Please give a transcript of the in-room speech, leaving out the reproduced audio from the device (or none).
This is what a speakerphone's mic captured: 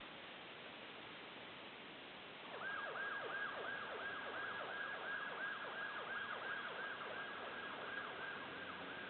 none